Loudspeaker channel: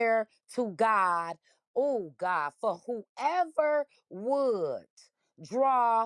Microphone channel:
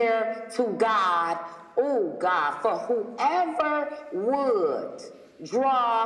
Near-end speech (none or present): none